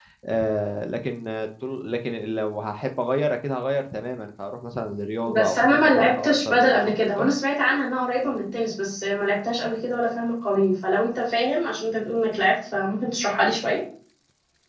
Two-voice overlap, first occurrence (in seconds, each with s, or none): 5.3 s